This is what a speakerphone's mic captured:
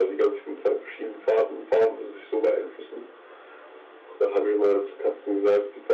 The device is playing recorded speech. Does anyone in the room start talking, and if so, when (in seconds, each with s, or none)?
none